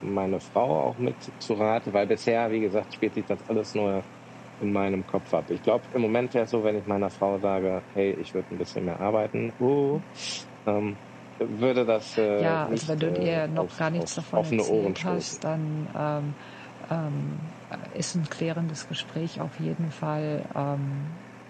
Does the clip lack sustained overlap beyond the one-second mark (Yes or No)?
No